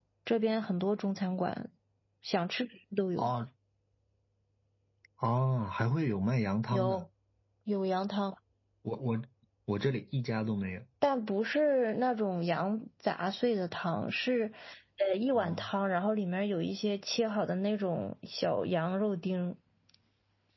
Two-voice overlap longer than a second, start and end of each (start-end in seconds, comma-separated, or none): none